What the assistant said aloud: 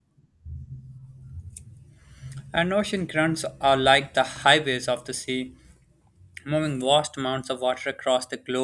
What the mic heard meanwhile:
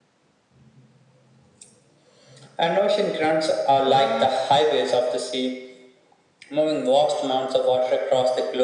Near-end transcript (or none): cu-